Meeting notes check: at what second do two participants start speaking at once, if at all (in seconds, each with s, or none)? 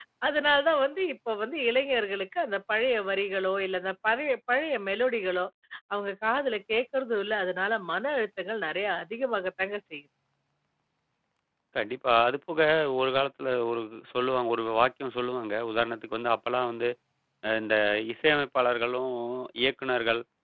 none